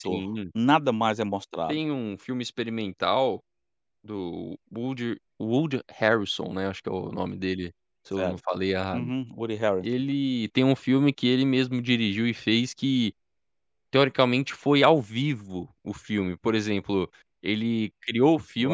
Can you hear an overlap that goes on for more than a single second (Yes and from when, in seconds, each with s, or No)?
No